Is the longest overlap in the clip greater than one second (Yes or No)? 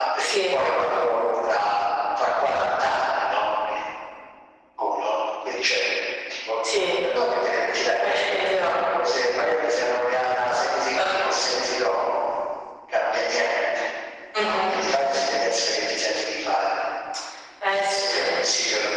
No